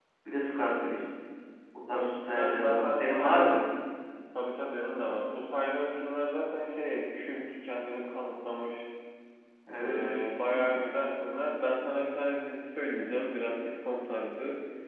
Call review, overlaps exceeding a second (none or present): present